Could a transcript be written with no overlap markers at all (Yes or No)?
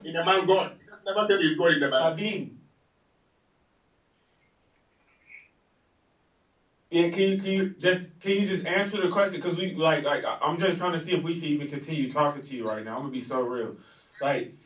Yes